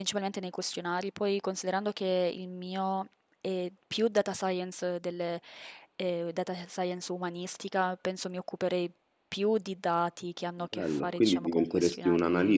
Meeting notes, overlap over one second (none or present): present